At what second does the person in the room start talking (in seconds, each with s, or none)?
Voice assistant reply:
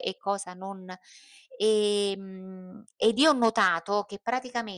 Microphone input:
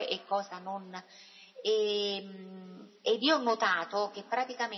none